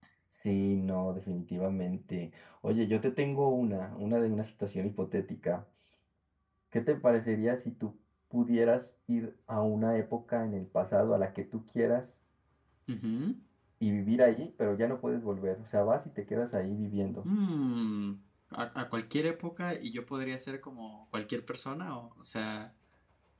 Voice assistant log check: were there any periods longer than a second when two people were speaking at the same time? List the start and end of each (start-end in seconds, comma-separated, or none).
none